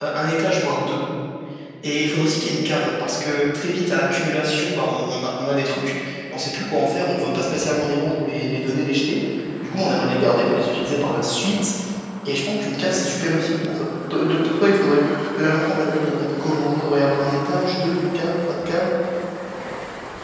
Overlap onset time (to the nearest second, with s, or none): none